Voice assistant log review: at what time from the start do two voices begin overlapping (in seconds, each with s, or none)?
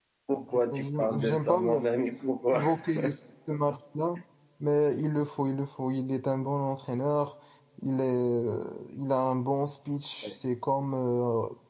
0.5 s